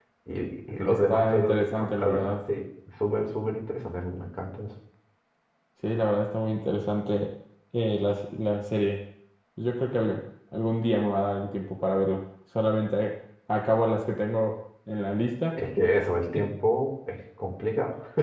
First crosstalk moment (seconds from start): 1 s

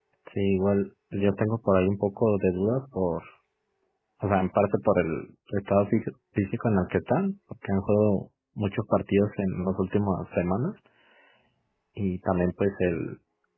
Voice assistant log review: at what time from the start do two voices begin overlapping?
none

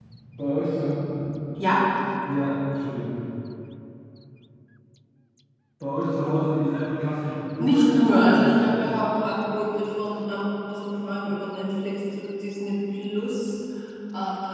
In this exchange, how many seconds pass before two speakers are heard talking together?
8 s

